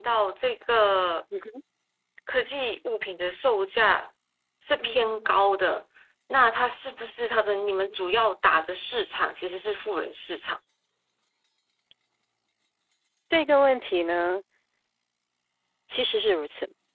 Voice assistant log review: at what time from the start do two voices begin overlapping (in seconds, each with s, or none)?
none